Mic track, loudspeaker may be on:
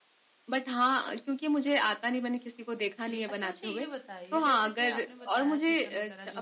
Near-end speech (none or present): present